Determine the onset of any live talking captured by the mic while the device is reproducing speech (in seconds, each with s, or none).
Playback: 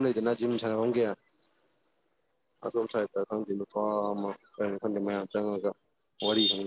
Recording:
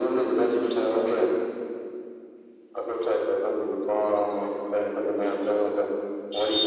none